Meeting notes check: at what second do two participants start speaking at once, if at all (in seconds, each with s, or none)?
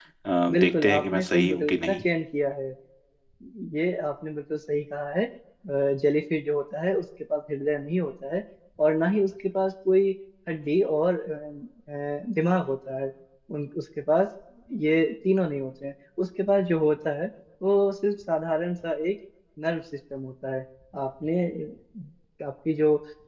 0.5 s